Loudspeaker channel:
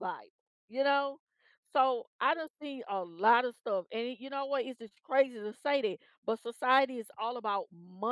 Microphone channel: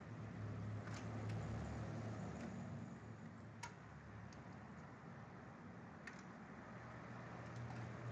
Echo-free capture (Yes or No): Yes